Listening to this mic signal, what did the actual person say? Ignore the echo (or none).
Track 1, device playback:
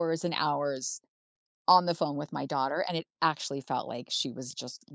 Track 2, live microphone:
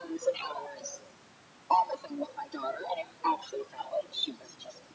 none